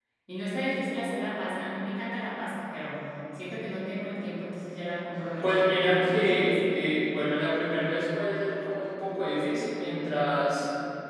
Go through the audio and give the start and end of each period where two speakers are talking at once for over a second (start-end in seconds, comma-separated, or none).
5.4-6.8